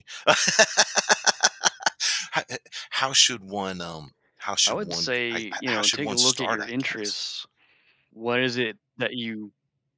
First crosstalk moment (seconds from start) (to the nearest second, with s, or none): 5 s